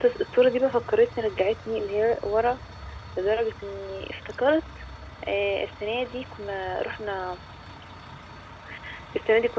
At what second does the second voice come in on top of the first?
none

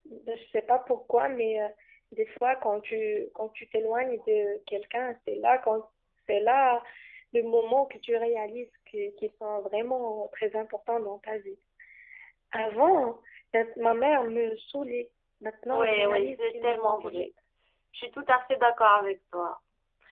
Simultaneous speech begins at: 15.7 s

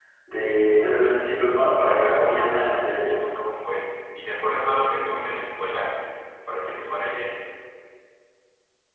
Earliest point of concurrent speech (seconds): 1.9 s

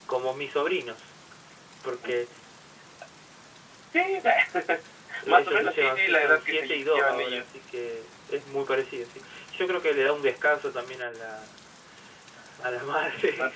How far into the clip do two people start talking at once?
5.3 s

